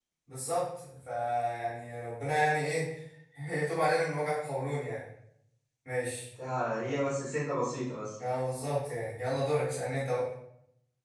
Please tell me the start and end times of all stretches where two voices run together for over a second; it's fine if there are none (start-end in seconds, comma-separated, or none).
none